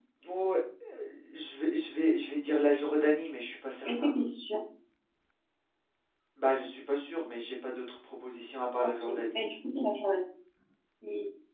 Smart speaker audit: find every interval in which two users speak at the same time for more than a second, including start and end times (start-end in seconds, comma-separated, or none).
none